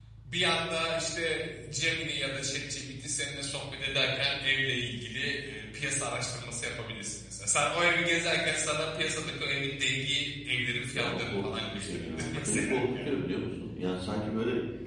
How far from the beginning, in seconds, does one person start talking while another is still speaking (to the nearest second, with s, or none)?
11 s